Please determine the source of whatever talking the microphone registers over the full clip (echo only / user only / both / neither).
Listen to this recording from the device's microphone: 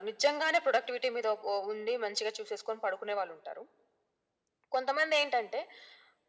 echo only